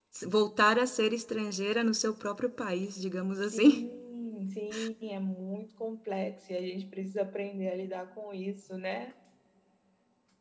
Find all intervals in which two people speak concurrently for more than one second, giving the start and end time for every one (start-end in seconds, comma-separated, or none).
none